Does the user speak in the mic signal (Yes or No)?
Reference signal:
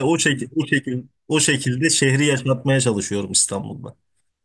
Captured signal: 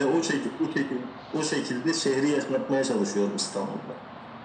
No